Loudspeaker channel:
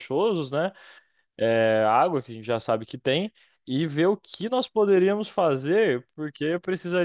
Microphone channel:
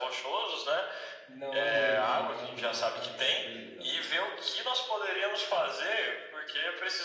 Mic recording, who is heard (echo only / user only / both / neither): both